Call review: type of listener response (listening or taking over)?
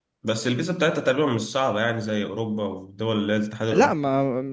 taking over